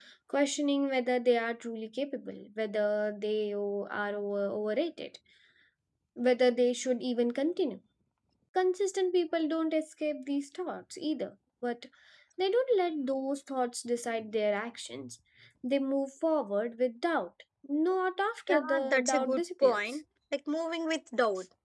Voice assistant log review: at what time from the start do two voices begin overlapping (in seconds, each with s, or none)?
18.5 s